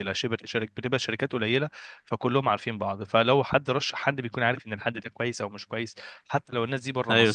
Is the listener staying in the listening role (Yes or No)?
Yes